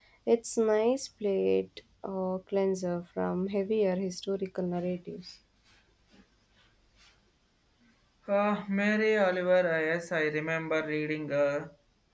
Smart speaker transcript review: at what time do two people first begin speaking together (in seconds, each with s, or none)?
none